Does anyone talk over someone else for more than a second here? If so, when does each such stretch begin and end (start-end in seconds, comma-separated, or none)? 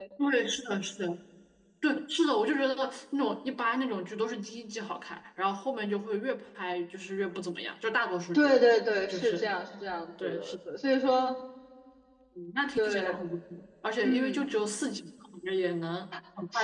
none